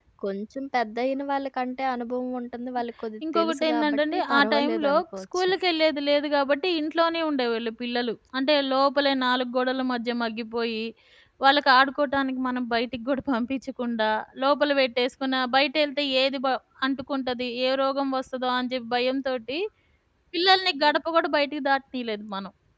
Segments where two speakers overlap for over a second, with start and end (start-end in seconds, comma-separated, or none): 3.3-5.5